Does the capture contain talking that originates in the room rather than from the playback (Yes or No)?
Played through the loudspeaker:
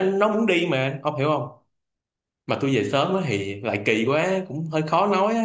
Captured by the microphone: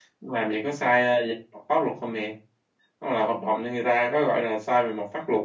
Yes